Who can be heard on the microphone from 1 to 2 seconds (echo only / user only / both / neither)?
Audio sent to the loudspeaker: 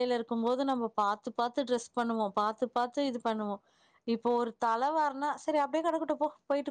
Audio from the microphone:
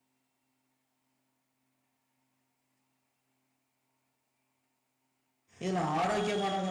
neither